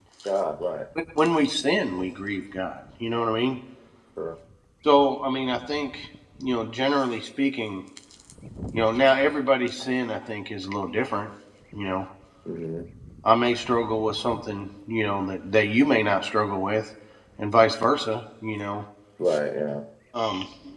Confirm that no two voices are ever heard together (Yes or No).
Yes